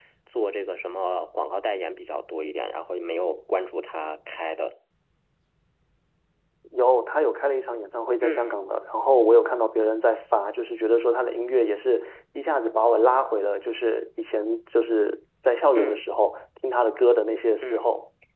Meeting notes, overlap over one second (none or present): none